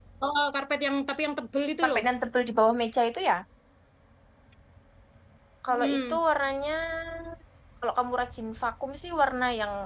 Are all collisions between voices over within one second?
Yes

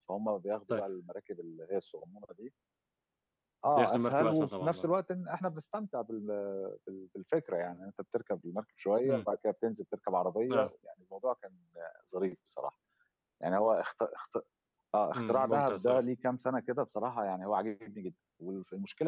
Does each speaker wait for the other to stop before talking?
No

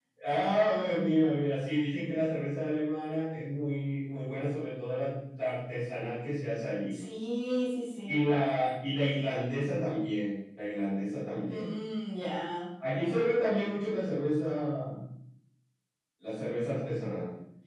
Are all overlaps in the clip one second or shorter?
Yes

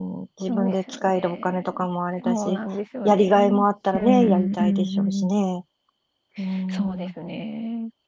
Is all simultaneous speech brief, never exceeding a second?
No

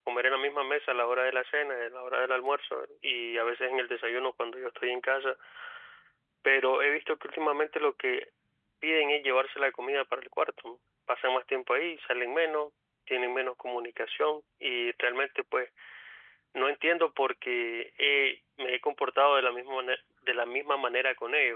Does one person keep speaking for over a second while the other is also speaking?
No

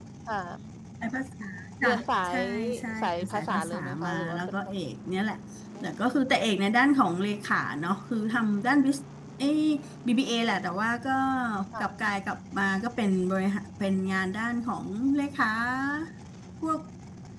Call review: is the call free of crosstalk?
No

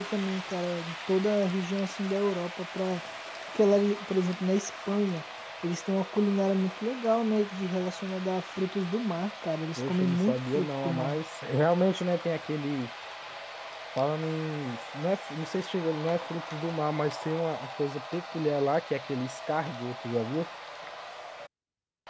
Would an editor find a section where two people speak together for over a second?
Yes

